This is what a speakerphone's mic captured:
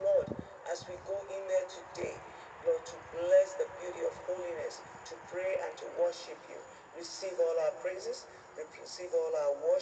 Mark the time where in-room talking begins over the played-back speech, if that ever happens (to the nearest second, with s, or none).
none